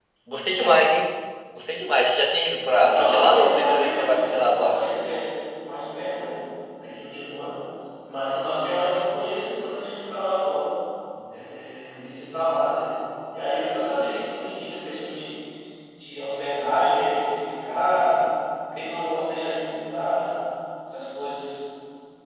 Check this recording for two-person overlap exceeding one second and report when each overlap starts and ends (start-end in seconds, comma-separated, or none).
2.7-4.8